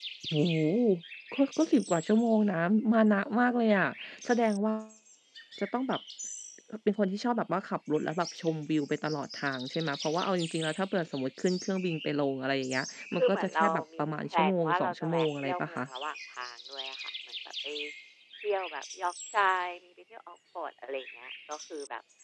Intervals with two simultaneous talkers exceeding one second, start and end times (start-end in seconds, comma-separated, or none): 13.2-15.8